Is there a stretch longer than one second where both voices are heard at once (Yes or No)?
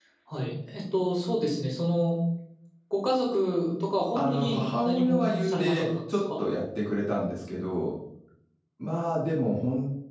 Yes